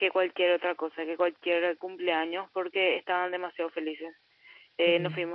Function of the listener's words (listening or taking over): listening